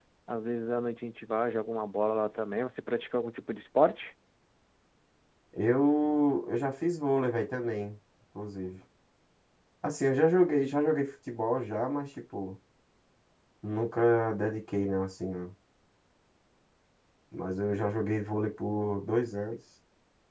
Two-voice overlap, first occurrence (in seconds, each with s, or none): none